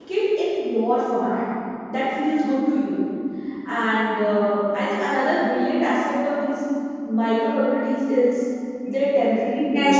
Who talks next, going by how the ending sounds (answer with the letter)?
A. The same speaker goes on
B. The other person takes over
B